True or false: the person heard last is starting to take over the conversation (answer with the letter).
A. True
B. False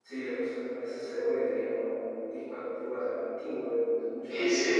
A